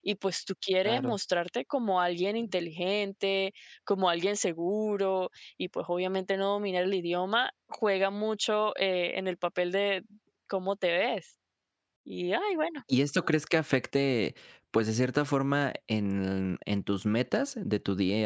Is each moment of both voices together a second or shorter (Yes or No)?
Yes